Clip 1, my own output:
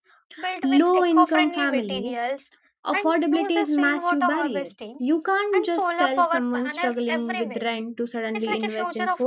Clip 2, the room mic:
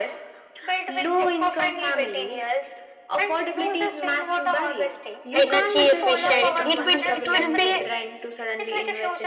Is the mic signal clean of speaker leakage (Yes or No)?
No